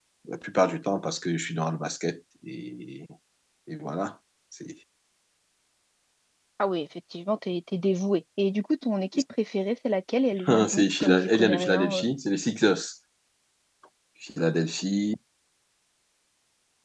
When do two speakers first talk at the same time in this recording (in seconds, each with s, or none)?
10.5 s